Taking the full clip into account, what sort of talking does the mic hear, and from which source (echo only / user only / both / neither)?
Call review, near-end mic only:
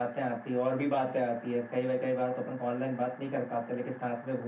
echo only